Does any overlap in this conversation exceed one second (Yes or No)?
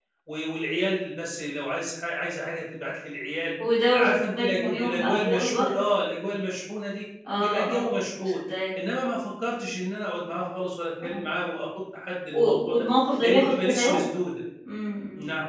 Yes